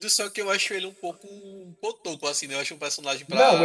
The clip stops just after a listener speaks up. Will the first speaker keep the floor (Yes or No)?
No